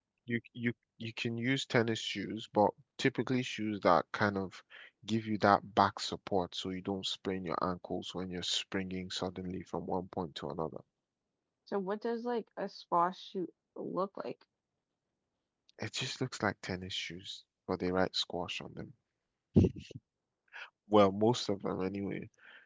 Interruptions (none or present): none